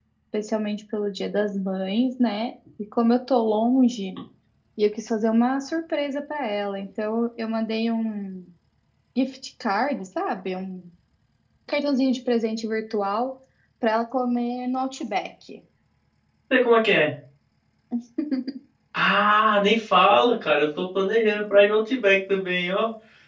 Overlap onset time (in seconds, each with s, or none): none